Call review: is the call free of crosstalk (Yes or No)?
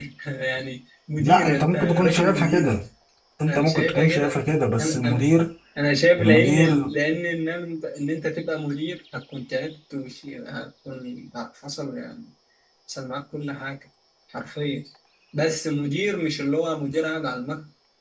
No